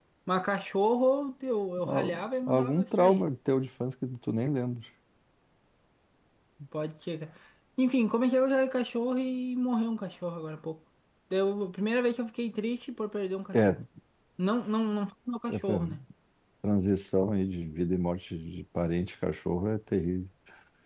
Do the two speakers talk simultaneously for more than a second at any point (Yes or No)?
Yes